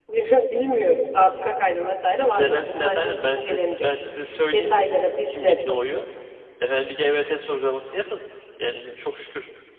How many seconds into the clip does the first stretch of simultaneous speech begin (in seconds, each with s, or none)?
2.2 s